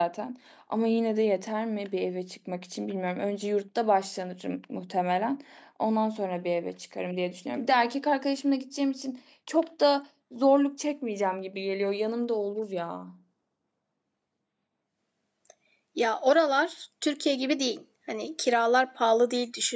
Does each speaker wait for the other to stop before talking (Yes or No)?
Yes